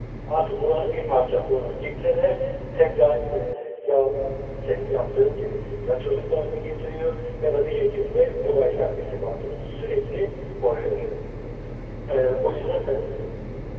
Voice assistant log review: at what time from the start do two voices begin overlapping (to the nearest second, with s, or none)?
none